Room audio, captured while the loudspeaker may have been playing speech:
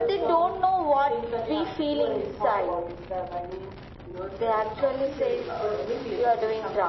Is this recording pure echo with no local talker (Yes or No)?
Yes